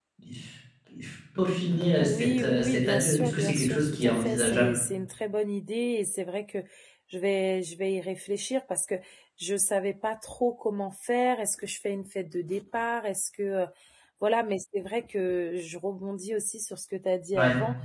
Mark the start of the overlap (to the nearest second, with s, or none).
2 s